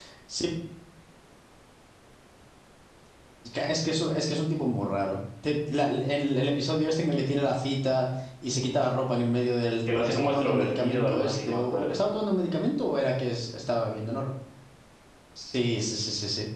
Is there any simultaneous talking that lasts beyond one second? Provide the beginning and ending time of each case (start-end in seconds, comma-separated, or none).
9.9-12.0